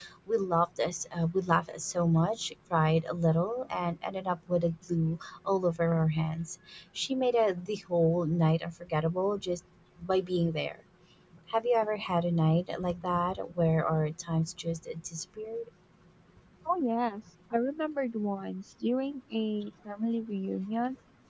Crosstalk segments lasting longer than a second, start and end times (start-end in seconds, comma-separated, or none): none